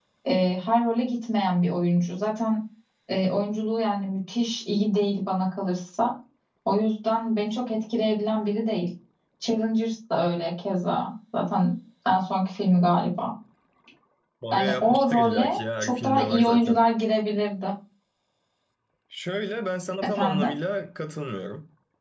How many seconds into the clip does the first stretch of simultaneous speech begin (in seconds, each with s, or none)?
14.5 s